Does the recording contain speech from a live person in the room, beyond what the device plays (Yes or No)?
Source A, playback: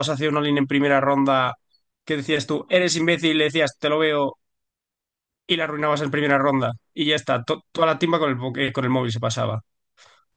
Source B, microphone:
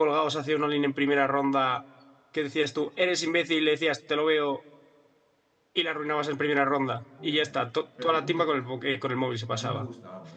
Yes